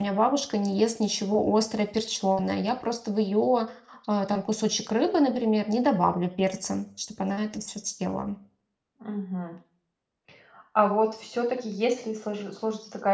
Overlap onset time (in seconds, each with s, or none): none